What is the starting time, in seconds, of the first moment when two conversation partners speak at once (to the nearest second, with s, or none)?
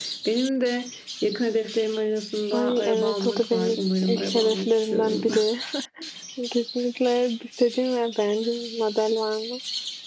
3 s